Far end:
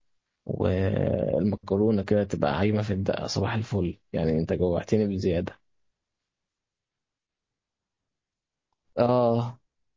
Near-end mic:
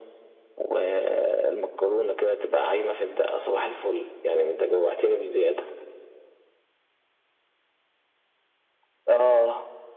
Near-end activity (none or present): none